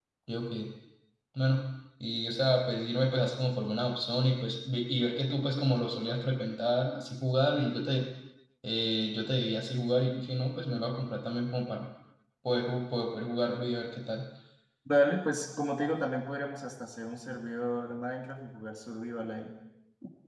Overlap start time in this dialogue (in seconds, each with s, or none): none